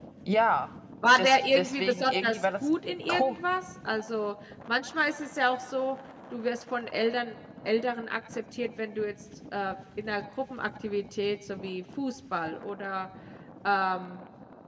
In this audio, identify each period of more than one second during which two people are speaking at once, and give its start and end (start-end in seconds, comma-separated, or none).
1.2-2.5